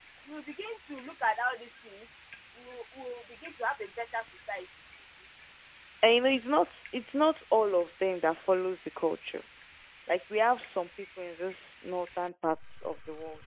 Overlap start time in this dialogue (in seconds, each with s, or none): none